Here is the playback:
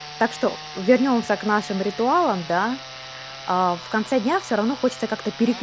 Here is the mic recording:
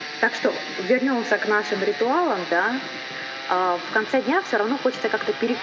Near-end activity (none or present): none